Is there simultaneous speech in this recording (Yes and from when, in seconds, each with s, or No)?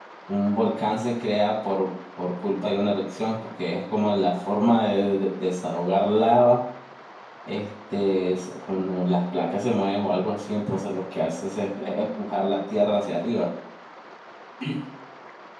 No